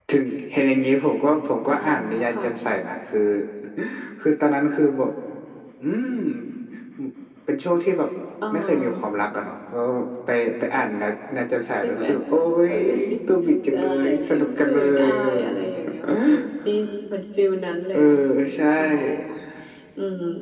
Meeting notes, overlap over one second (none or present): present